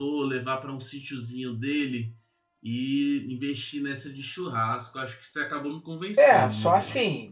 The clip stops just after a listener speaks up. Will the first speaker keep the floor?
No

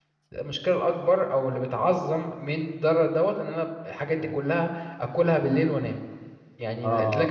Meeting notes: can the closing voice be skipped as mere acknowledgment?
No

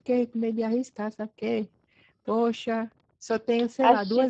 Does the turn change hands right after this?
No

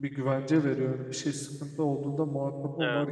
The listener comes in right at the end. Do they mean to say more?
Yes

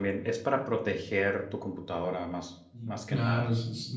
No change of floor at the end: No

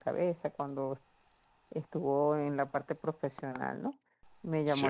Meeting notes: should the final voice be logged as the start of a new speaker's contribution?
No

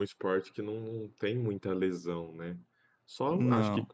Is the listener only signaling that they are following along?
Yes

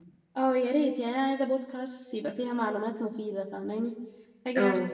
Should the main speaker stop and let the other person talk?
No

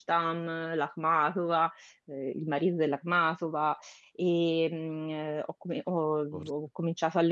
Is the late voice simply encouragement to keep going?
Yes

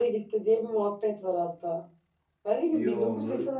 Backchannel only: Yes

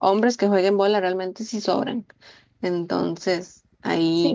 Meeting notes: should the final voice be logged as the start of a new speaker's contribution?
Yes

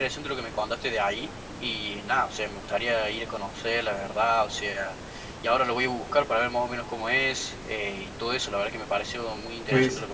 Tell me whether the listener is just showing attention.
No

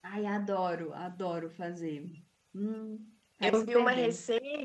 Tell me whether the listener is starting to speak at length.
Yes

